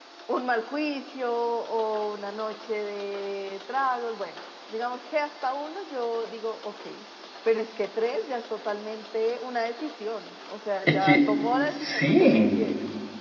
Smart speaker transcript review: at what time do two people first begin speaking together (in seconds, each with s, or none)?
10.9 s